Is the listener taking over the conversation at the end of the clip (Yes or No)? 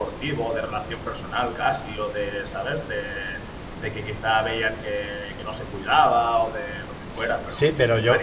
Yes